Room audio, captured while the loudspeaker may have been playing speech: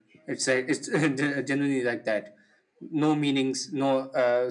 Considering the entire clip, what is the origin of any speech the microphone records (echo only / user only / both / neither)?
echo only